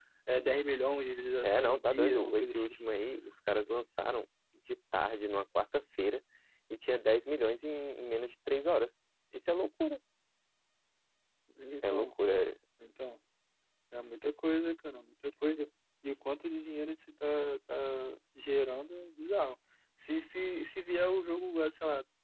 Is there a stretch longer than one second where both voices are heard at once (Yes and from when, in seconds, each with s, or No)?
Yes, from 1.4 s